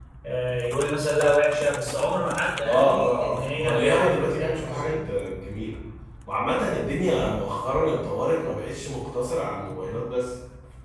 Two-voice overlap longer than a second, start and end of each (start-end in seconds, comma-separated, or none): 2.6-5.0